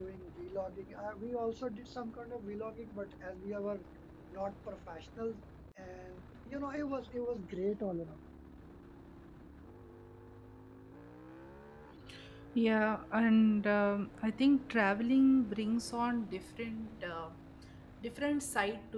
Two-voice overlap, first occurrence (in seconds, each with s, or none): none